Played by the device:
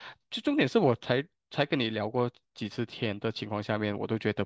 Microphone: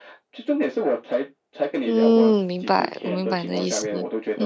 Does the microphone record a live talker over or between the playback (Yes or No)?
Yes